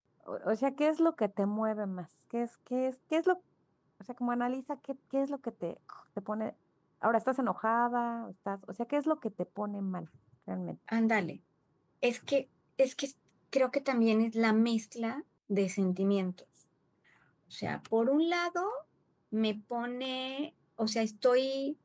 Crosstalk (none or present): none